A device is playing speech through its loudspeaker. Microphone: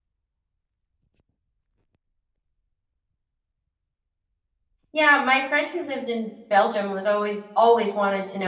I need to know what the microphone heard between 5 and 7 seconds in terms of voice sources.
user only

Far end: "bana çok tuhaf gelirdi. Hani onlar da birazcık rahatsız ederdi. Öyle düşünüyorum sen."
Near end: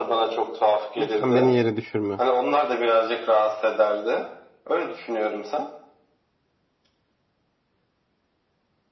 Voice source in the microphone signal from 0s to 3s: both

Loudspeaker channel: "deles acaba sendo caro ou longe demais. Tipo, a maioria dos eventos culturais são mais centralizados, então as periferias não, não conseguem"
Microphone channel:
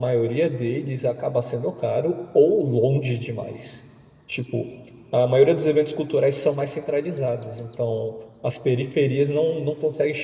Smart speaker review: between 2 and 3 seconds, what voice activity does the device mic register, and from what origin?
echo only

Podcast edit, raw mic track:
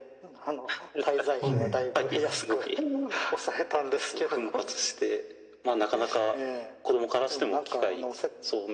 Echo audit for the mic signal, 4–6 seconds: echo only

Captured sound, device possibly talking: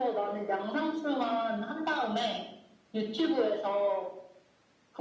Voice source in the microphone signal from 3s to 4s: echo only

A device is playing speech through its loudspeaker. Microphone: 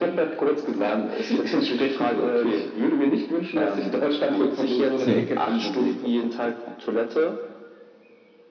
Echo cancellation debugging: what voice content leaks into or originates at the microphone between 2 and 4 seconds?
echo only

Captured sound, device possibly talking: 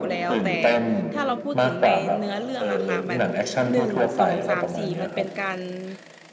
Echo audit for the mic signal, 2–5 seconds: both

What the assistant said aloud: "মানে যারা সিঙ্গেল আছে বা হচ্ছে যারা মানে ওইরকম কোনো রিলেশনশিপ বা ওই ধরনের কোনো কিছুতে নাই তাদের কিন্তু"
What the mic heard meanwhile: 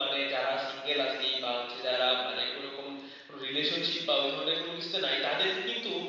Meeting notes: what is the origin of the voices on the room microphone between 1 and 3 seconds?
echo only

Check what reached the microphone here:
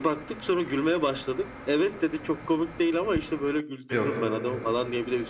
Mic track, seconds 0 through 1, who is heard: echo only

